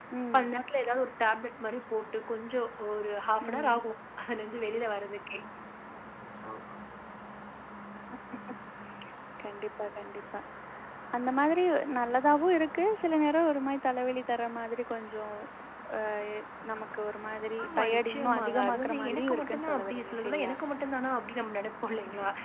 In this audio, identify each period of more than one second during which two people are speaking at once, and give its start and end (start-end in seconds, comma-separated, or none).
17.6-20.5